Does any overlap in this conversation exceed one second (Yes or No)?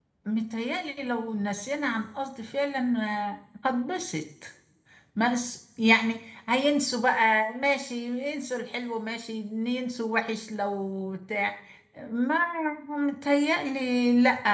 No